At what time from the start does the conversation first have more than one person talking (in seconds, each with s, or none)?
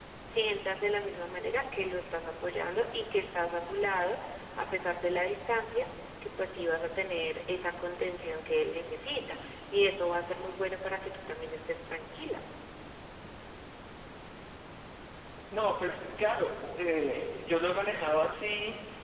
none